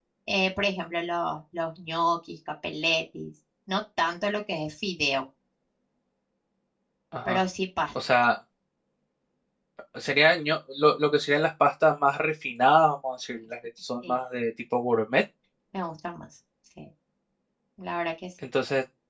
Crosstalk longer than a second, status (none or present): none